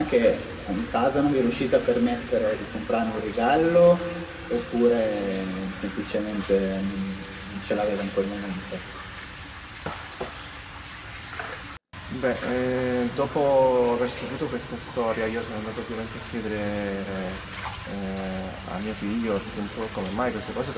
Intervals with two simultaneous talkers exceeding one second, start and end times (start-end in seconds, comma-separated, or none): none